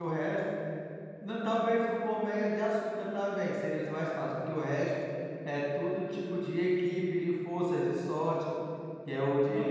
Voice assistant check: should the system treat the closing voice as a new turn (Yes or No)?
Yes